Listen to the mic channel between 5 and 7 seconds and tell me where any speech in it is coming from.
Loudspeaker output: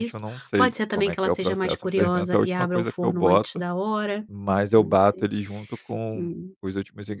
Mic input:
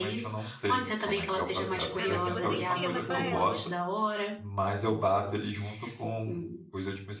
echo only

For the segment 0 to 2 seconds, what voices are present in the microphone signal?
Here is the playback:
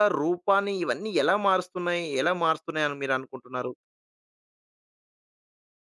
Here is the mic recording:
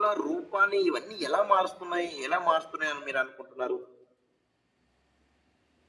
echo only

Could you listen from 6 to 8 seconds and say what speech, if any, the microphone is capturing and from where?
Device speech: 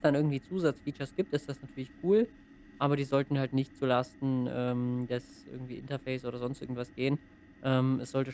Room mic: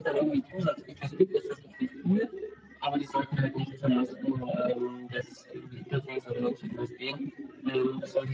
echo only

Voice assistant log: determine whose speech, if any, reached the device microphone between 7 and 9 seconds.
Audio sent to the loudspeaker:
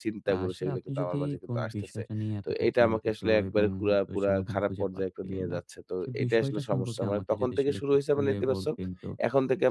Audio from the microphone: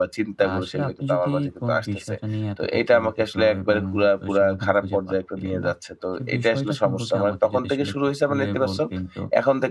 echo only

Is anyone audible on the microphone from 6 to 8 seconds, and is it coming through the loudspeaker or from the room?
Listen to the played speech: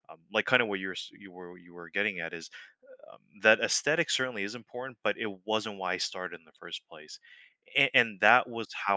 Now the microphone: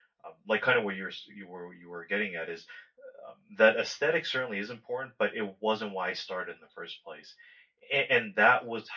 echo only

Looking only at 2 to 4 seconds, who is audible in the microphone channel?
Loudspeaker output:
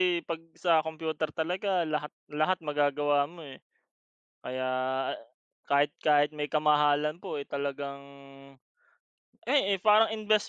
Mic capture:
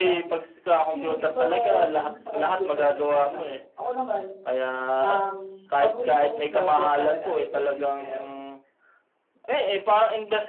both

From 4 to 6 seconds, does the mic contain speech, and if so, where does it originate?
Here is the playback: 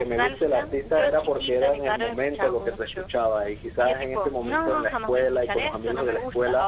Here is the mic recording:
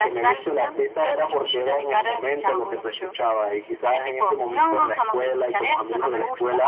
echo only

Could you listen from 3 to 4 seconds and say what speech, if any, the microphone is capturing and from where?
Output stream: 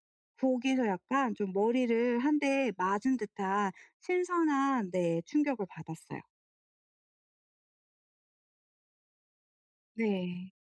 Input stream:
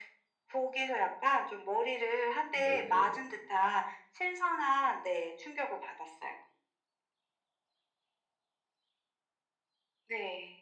both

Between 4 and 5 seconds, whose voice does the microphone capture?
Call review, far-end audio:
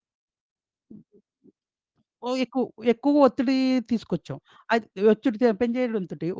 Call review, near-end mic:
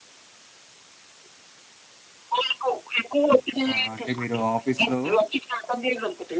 both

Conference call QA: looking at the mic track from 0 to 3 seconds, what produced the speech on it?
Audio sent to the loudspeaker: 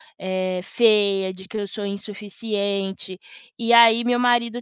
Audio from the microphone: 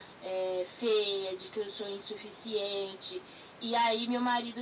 echo only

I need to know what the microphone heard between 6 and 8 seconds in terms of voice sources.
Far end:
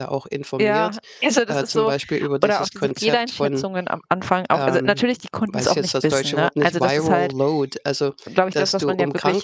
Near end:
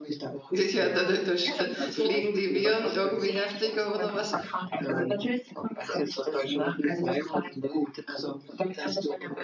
echo only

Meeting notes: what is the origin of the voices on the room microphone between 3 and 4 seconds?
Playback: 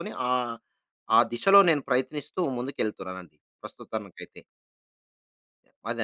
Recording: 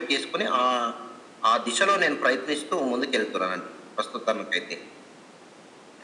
echo only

